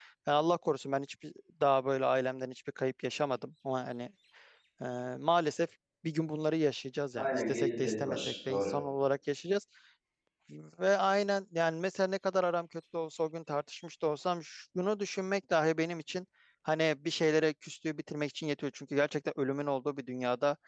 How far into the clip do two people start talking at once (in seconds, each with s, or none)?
7.2 s